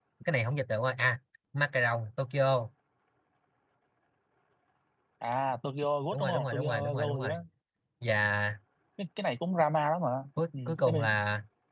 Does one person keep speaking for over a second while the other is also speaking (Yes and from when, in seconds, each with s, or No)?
Yes, from 6.1 s